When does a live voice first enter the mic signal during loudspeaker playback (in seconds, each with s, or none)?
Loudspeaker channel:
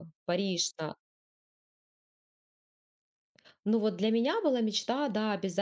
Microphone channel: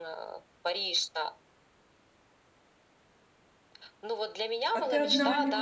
4.7 s